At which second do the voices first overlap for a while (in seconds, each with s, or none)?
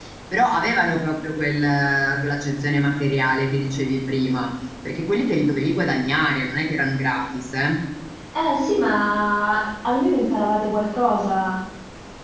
none